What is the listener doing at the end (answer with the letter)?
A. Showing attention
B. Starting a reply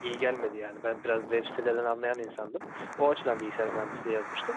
A